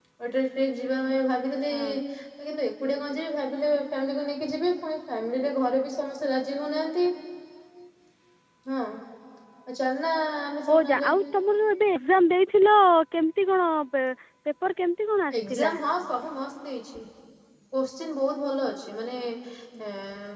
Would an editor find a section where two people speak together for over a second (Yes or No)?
No